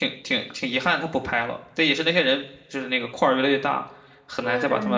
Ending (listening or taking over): taking over